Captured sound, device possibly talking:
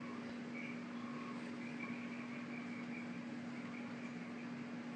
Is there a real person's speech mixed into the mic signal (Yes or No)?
No